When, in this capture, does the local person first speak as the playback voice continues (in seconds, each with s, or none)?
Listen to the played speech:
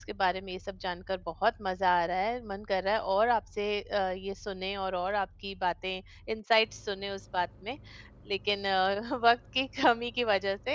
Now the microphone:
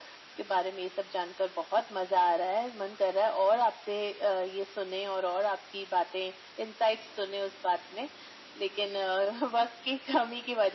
none